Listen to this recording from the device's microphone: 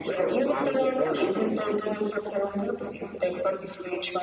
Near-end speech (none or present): present